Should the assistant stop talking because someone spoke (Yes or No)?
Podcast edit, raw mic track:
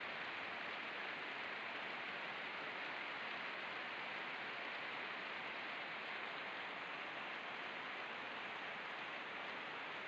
No